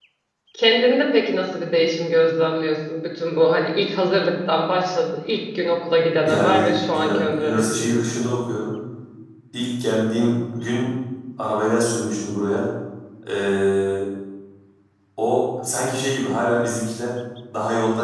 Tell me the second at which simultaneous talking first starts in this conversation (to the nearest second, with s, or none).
6 s